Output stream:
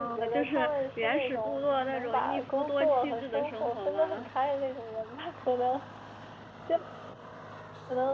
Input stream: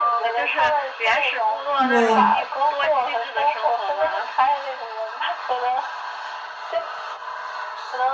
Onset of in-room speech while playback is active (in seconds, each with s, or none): 1.8 s